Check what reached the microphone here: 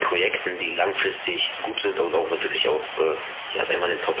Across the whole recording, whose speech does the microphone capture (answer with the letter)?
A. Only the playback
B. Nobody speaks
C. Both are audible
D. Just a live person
A